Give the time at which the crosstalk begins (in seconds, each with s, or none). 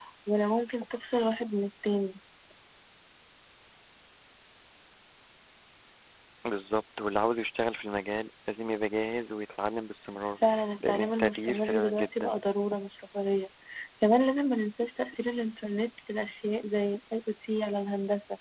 10.8 s